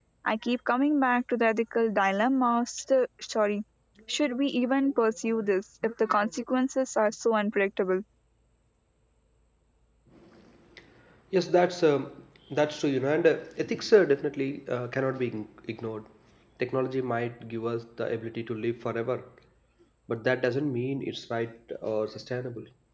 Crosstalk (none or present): none